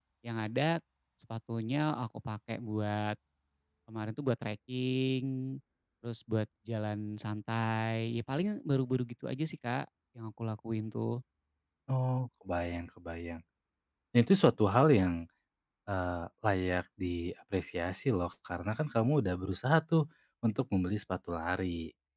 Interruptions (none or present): none